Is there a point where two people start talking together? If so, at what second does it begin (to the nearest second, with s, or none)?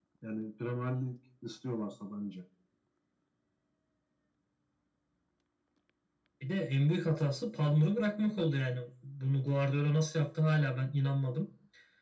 none